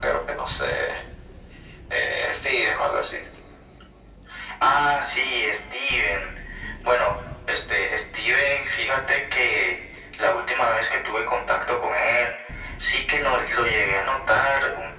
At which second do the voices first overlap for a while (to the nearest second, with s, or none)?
none